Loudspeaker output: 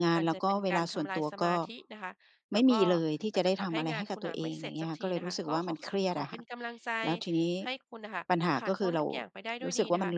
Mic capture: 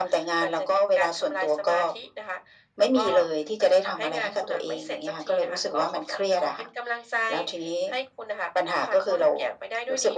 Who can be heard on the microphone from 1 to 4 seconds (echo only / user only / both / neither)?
echo only